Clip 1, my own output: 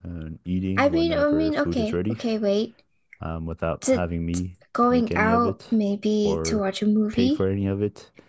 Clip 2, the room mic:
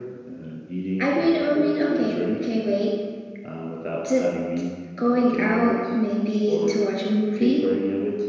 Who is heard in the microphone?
echo only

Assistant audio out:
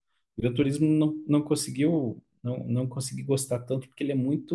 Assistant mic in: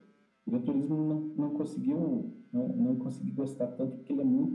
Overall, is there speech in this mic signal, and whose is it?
echo only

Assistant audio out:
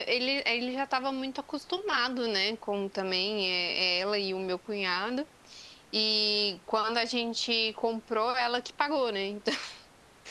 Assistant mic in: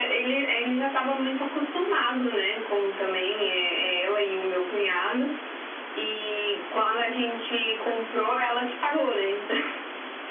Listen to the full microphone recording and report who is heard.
echo only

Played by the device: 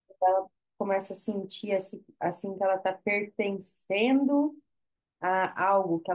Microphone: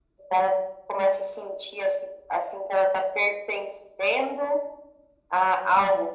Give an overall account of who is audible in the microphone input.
echo only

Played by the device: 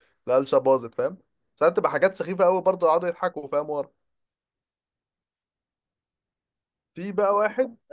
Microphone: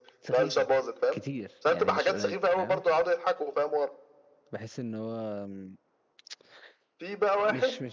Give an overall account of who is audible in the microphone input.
both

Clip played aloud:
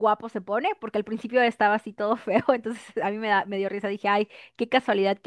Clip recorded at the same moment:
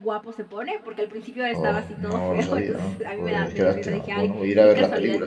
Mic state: both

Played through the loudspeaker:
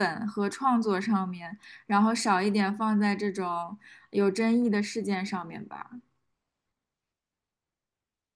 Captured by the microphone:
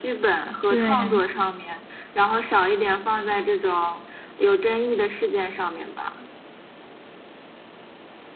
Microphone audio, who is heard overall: both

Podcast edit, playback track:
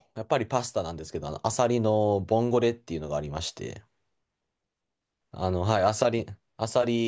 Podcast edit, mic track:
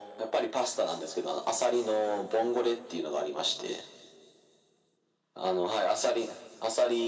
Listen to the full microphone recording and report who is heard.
echo only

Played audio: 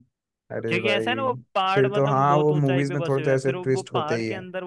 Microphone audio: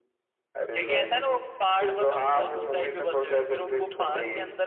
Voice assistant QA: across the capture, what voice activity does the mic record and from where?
echo only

